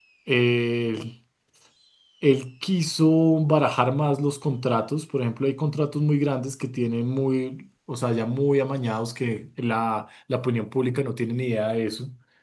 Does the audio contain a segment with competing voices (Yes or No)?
No